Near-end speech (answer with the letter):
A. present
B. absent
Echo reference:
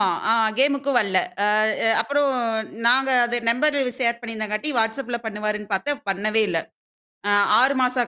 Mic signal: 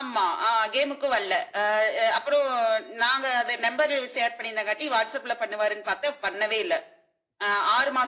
B